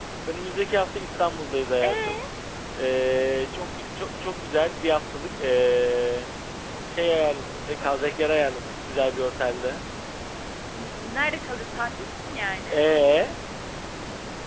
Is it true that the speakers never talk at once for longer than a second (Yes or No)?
Yes